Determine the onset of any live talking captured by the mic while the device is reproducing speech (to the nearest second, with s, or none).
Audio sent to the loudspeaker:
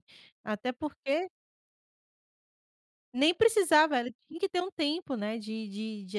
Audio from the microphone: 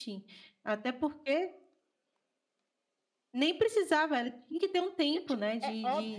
5 s